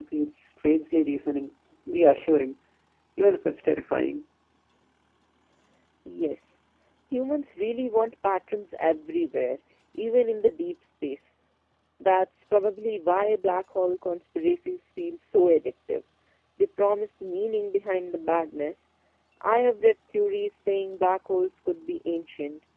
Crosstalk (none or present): none